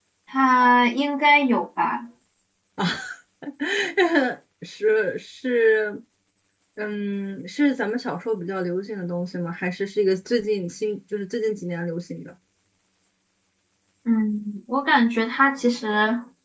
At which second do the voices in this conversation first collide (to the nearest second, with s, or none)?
none